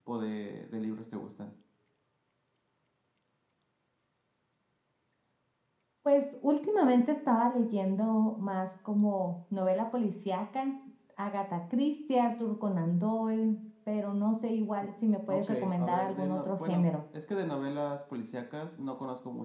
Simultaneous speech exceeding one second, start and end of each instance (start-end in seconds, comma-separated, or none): 15.3-16.9